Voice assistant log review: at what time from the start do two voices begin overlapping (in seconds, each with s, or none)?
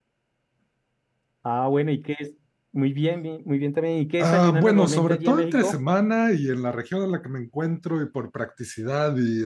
4.2 s